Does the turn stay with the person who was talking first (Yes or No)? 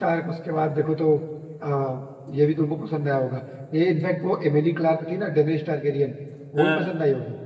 Yes